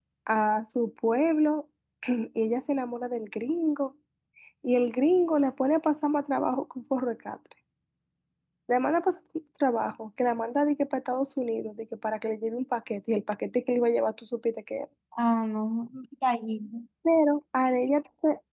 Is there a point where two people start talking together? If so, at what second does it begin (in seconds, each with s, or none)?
none